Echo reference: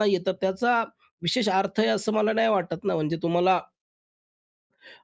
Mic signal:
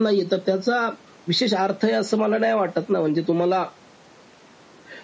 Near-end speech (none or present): none